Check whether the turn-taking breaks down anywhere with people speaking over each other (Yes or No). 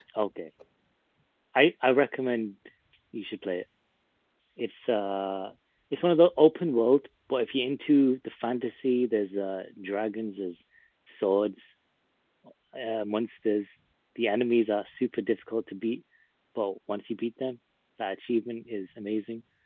No